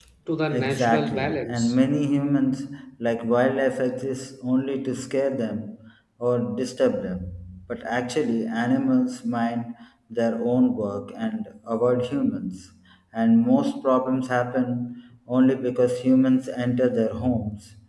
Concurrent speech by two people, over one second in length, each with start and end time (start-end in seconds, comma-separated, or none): 0.5-1.8